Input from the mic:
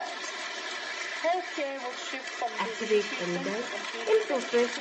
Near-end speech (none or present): present